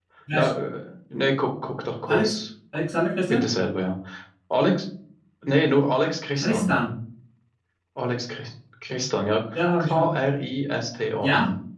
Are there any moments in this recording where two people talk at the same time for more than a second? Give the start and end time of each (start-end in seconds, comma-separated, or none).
none